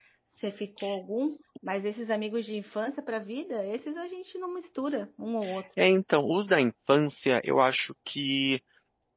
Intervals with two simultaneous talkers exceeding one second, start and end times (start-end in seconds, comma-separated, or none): none